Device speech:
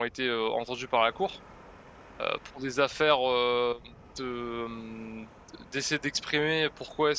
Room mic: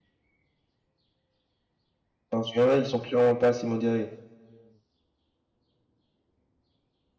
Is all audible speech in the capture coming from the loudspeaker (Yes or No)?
No